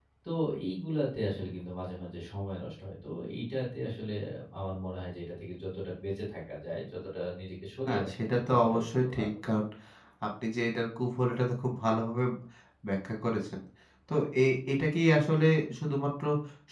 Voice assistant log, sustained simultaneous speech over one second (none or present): present